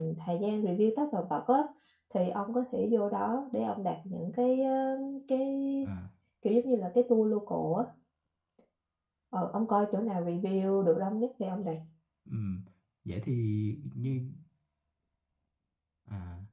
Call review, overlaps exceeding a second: none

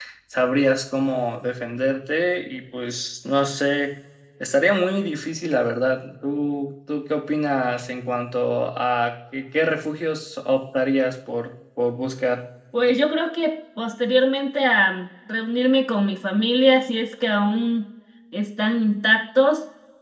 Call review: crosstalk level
none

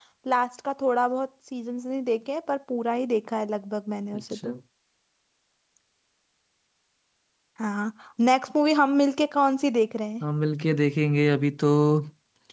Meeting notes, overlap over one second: none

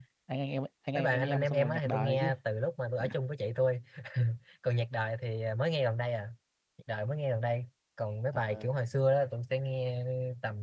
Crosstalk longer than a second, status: present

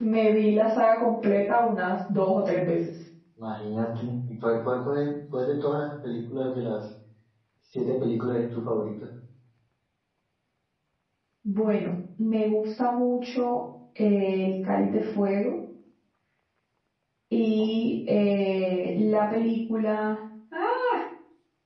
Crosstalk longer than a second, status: none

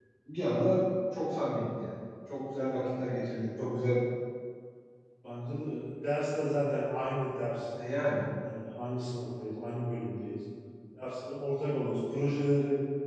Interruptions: none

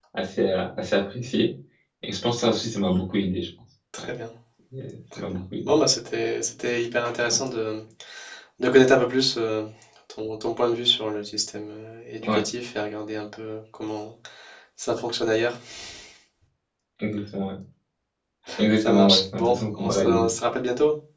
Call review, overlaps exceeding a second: present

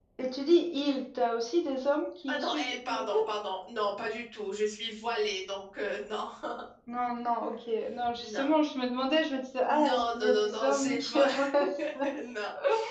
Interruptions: present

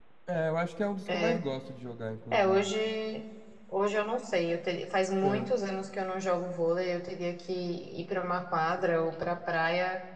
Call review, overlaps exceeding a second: none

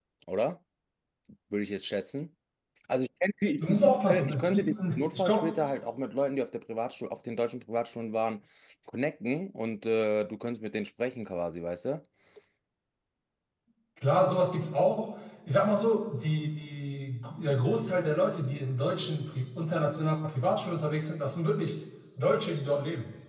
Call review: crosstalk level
present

